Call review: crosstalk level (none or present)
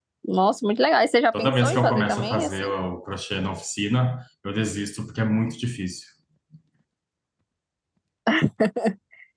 present